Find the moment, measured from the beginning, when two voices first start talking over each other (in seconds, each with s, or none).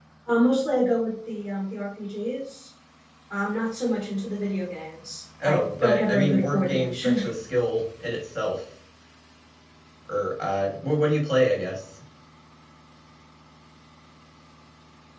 5.4 s